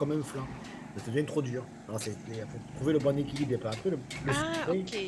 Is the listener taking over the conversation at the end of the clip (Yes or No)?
No